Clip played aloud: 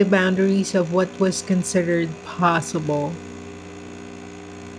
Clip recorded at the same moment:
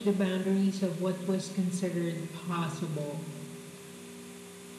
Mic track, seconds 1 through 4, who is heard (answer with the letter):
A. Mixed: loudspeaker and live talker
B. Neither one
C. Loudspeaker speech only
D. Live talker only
C